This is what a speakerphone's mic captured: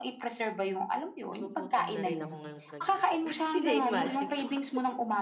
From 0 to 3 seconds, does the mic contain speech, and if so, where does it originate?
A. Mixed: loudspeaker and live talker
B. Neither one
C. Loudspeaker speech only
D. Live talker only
A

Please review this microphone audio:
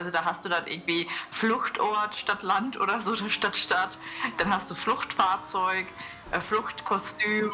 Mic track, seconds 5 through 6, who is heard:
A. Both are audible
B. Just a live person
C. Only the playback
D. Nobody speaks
C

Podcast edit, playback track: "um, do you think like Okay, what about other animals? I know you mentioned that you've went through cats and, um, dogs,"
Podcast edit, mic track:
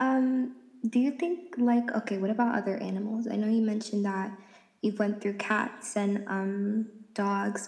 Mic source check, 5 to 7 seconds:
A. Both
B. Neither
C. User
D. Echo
D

